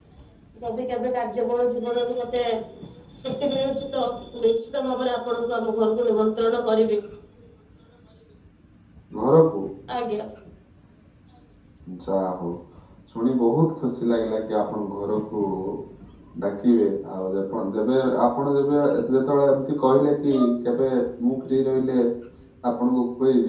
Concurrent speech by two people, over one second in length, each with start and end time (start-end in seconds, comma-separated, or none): none